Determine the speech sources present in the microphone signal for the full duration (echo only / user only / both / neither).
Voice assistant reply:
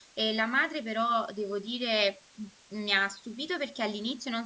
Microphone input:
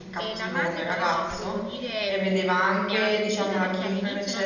both